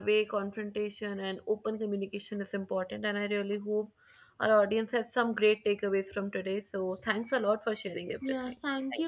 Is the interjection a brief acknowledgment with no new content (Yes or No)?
No